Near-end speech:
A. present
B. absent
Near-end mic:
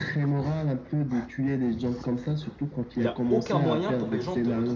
A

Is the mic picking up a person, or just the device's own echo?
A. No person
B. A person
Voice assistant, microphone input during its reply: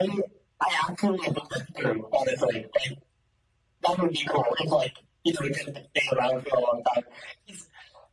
A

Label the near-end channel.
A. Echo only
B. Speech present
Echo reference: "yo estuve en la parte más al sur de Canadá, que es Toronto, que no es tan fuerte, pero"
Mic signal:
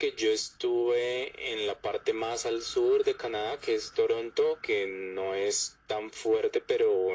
A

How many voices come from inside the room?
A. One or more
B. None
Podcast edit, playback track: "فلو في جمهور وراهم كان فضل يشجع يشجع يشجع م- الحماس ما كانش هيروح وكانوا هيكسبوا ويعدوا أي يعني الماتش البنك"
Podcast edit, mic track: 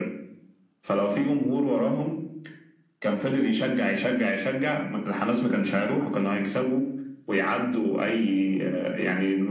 B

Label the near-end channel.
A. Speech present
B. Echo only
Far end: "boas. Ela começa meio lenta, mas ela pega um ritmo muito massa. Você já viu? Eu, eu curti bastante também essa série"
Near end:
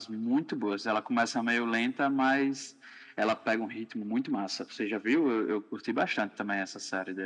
B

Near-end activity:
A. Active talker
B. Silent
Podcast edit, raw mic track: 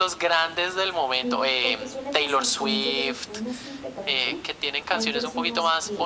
A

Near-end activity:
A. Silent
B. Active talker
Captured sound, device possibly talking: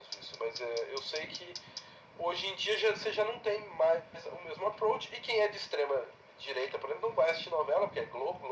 A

